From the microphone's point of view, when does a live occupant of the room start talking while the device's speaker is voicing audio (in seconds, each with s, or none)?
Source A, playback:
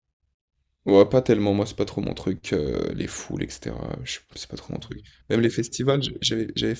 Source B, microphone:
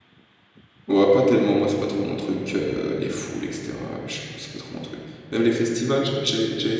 none